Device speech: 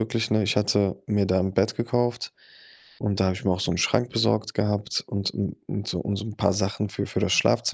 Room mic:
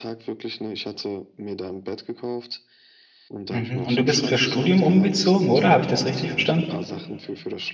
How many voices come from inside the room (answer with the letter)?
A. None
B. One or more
B